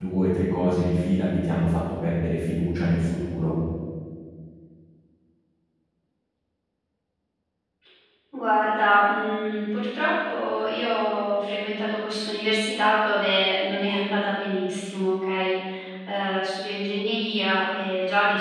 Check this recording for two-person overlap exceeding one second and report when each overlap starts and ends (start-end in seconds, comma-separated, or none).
none